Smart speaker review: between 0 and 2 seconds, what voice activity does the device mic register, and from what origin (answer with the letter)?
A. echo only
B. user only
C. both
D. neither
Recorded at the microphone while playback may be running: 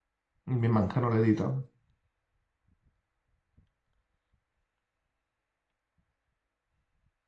B